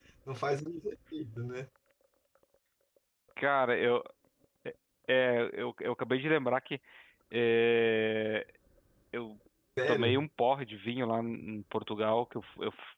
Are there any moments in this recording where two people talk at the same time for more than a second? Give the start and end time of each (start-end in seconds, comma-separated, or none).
none